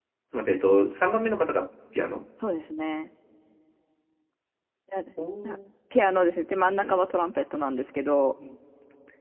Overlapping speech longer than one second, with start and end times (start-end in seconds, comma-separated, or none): none